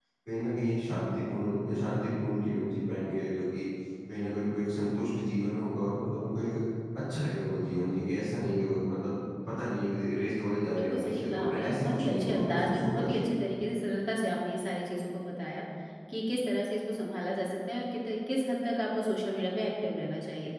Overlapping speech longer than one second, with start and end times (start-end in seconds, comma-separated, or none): 10.7-13.2